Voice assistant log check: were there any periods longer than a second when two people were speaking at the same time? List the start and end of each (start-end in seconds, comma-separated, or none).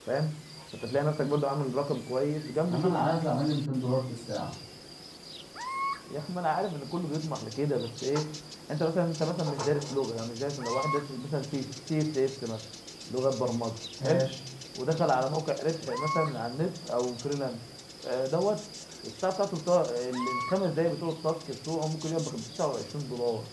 none